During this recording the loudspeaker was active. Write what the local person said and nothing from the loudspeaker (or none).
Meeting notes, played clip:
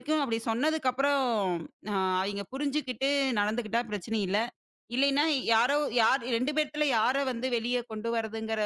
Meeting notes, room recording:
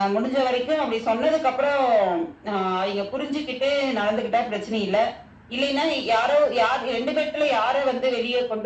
none